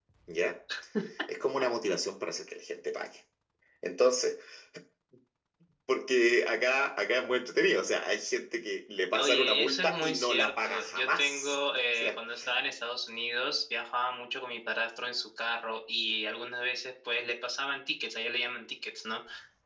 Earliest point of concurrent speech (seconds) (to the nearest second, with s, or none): 9 s